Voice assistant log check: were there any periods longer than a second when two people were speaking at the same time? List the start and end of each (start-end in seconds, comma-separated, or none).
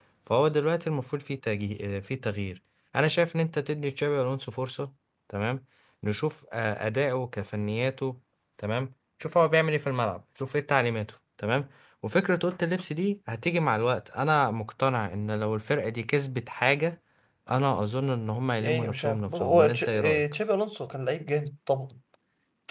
18.6-20.2